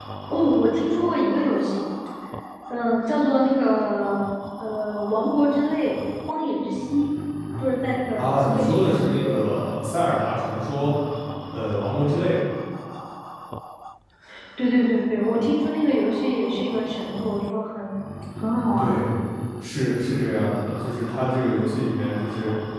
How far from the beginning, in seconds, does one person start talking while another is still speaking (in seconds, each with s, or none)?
8.2 s